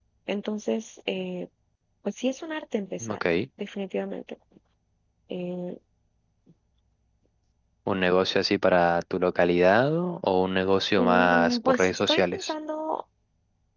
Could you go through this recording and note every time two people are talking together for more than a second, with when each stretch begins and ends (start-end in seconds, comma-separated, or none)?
11.0-12.5